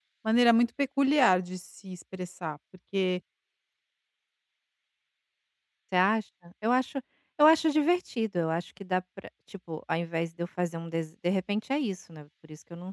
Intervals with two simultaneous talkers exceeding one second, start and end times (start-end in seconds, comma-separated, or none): none